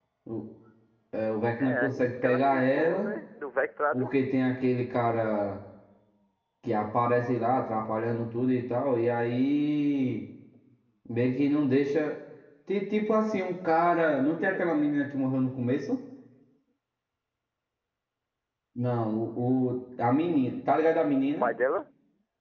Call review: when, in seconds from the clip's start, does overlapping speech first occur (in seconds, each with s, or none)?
1.6 s